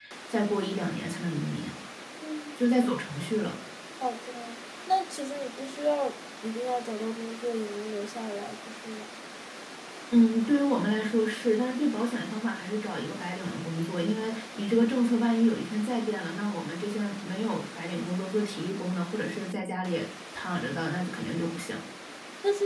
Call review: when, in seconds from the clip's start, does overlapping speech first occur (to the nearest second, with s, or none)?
none